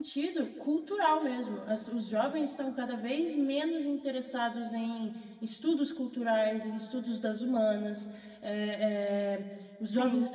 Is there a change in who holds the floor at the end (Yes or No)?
No